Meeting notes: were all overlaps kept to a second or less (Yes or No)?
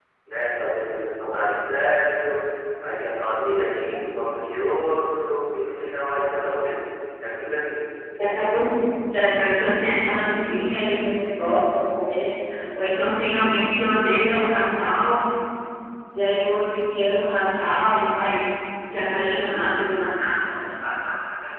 Yes